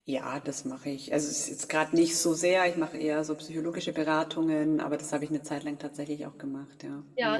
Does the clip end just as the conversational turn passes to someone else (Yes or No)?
Yes